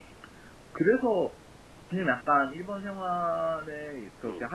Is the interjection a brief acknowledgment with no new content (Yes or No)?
Yes